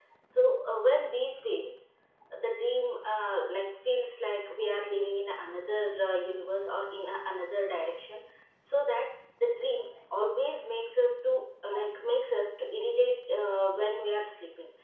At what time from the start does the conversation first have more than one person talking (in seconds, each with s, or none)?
none